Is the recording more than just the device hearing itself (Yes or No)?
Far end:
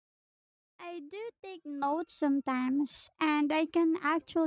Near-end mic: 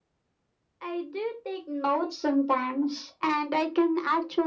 No